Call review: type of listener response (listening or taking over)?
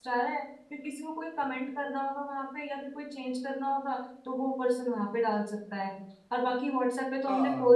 listening